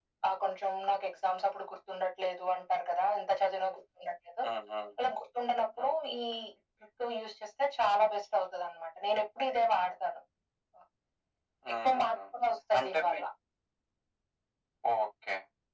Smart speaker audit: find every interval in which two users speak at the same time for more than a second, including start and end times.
none

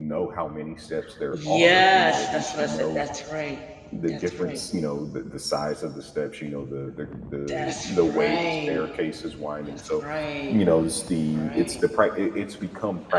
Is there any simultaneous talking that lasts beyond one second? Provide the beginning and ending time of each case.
1.3-3.0, 7.5-8.7

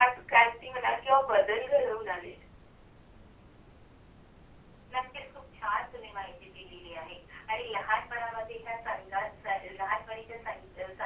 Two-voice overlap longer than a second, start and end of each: none

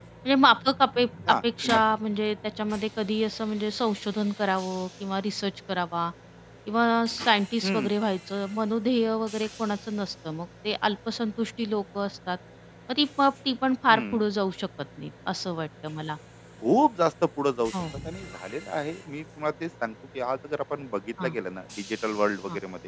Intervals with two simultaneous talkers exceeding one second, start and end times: none

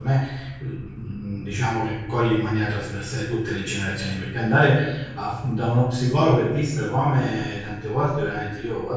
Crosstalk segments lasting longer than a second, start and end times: none

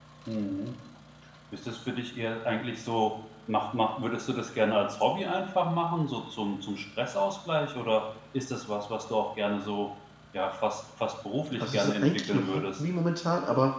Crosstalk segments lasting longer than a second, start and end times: 11.6-12.8

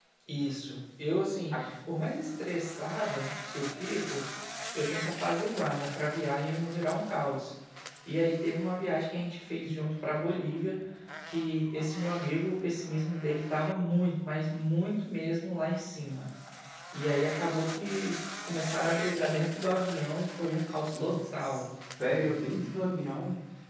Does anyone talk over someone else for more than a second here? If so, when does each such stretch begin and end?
none

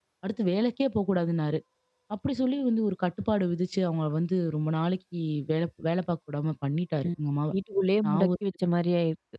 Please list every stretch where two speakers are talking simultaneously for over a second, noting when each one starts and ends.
none

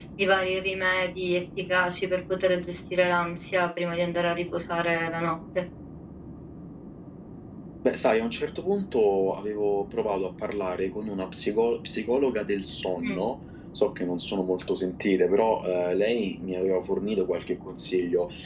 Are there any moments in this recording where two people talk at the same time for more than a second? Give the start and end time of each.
none

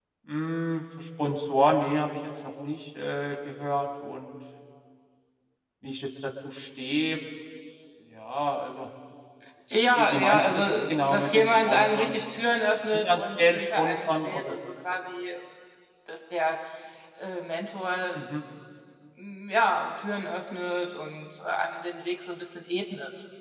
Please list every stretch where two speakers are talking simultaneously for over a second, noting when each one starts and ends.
10.0-12.2, 12.9-14.5

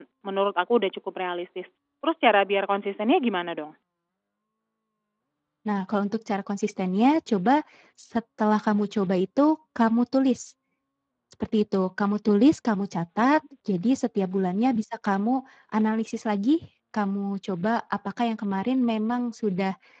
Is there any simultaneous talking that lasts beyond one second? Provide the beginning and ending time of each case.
none

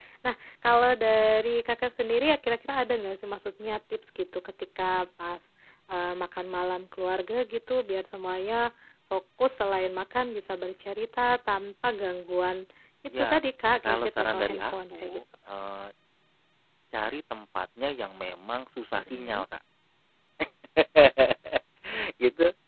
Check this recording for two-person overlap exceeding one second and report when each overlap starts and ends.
13.8-15.2

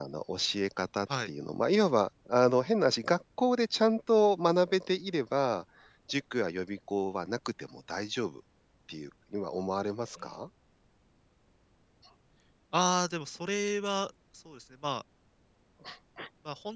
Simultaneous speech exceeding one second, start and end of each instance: none

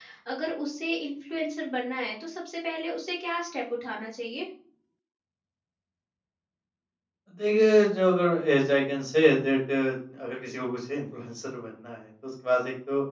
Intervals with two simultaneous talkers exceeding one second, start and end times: none

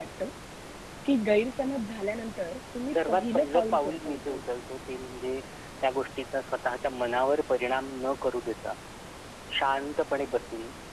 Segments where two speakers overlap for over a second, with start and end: 2.9-4.4

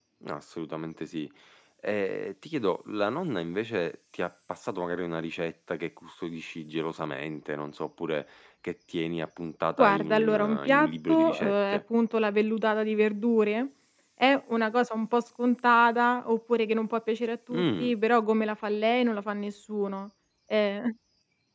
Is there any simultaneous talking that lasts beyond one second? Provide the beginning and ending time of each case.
9.8-11.8

